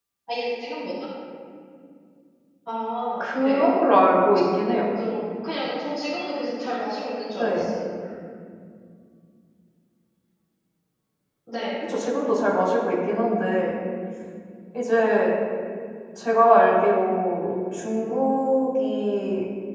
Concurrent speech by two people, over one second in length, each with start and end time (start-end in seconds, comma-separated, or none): none